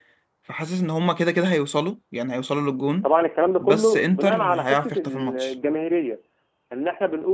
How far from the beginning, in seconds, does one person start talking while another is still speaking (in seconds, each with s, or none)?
3.6 s